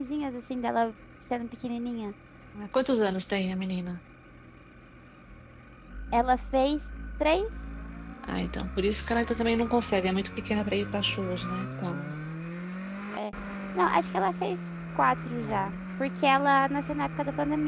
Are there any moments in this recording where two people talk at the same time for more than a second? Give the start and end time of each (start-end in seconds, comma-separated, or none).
none